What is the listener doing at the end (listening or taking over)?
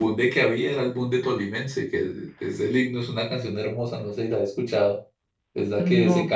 listening